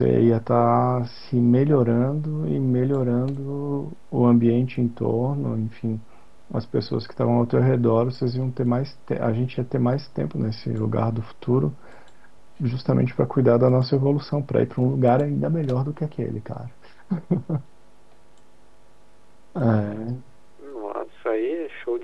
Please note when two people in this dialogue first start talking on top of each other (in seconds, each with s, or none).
none